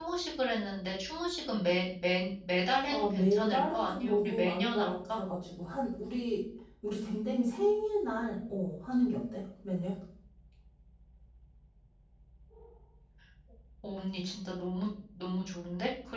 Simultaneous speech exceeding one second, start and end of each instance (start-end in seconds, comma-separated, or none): 2.9-5.2